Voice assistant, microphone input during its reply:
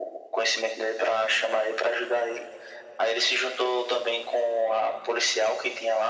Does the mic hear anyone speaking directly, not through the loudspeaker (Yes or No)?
No